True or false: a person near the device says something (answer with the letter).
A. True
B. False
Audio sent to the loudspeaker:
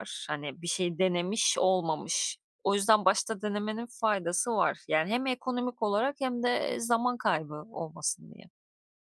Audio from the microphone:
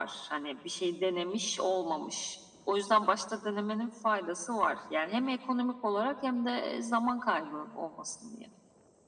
B